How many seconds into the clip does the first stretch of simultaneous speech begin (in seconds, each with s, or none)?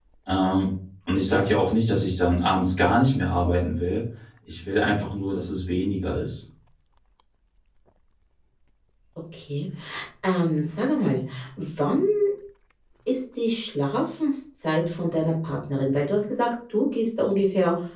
none